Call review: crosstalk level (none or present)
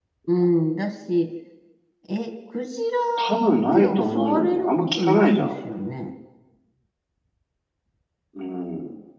present